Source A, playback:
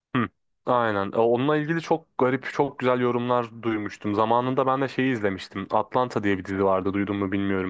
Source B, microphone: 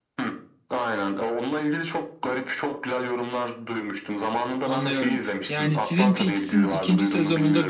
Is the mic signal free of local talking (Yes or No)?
No